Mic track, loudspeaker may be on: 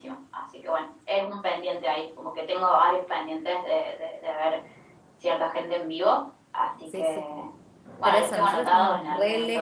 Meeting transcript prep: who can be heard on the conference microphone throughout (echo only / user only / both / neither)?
both